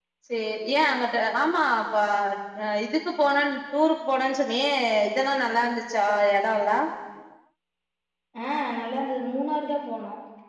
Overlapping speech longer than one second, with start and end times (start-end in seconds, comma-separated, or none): none